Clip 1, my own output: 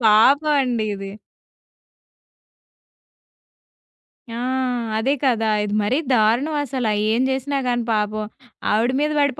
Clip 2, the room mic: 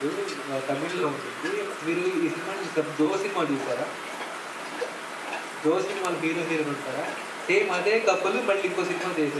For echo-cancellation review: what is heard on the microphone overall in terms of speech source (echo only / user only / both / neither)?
user only